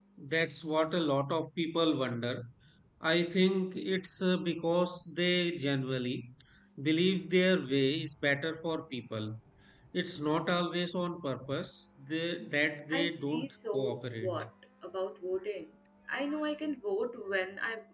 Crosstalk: present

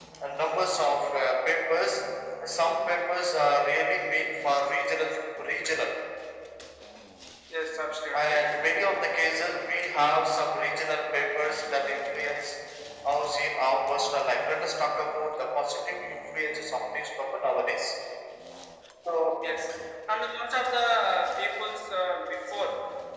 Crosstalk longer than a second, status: none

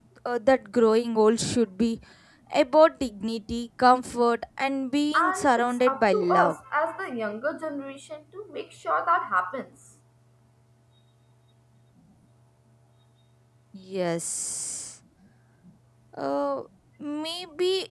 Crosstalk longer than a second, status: present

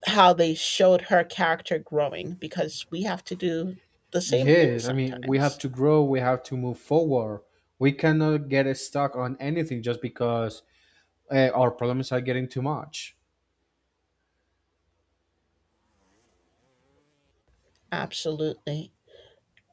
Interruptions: present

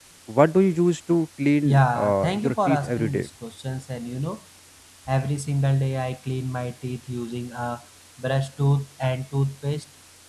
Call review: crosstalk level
present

